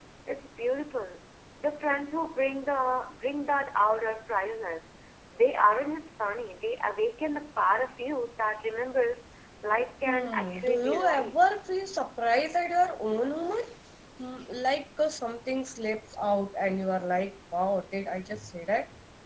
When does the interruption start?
10 s

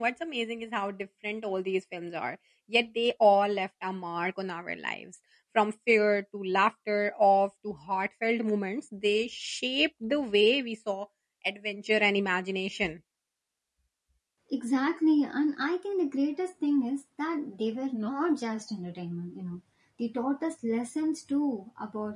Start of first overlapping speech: none

